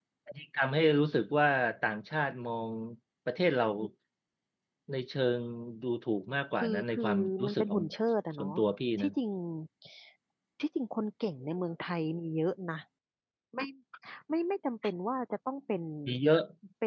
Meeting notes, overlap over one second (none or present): present